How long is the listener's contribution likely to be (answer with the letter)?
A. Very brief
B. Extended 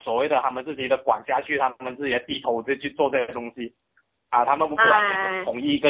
A